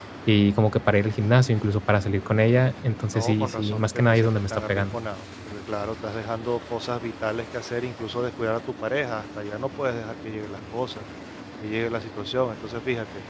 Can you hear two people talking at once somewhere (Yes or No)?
Yes